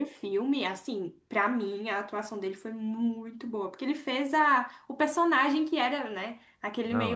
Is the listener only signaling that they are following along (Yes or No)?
Yes